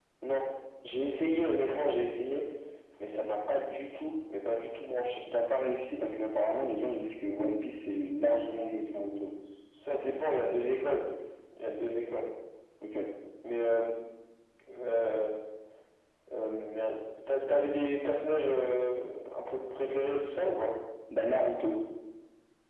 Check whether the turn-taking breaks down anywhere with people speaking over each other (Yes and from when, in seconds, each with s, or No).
No